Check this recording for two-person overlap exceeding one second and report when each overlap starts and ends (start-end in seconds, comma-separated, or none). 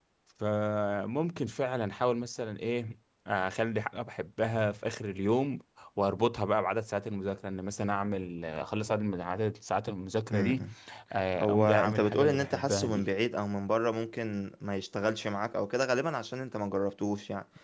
11.4-13.1